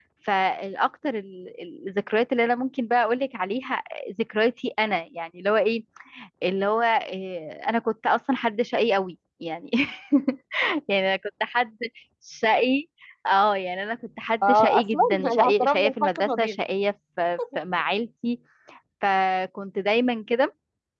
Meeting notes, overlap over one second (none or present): present